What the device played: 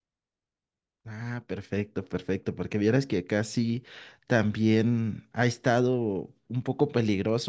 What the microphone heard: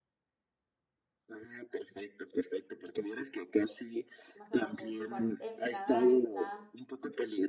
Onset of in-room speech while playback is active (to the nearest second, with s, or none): 4 s